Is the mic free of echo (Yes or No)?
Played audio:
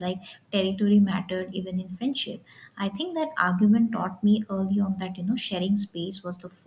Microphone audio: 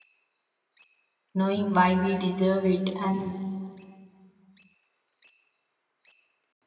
Yes